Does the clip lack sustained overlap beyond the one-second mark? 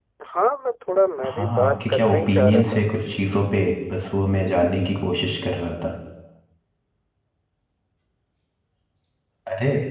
No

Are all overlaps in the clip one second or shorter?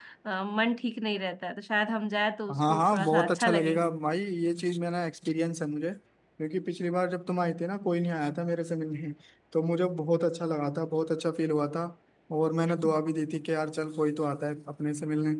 No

